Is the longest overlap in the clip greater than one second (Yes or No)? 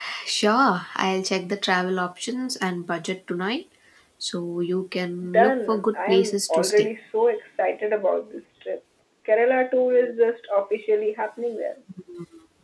Yes